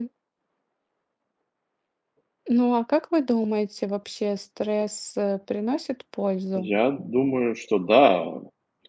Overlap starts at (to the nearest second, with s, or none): none